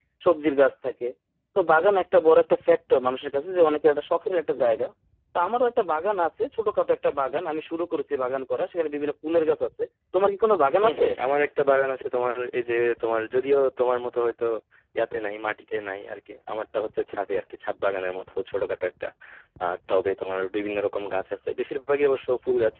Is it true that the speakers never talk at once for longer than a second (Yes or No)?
Yes